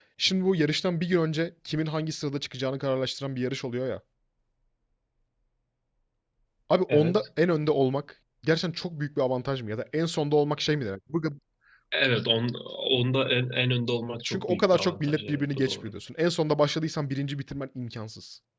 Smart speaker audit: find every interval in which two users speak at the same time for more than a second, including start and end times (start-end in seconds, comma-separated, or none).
14.2-15.9